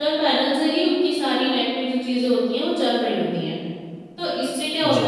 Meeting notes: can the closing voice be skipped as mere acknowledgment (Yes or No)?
Yes